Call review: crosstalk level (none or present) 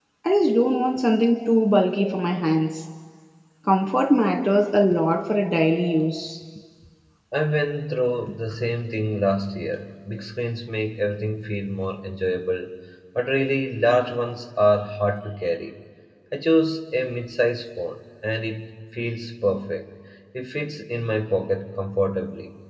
none